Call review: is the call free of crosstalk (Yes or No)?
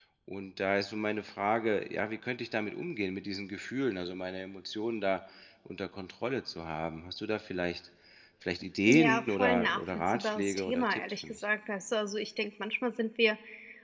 No